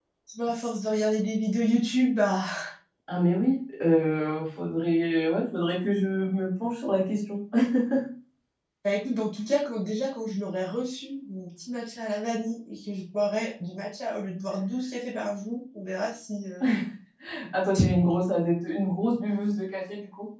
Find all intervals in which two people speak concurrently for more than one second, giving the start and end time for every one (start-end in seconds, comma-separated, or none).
none